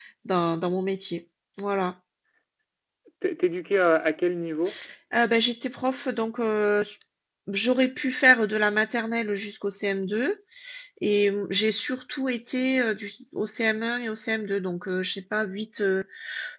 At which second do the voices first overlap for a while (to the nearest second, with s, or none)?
none